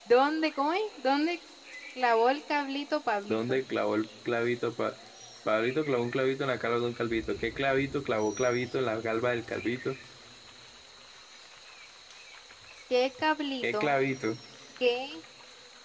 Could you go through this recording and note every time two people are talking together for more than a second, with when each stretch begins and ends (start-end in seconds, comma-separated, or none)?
none